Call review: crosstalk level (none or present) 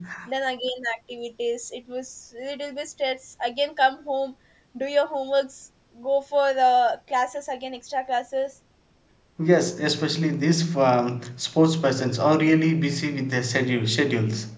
none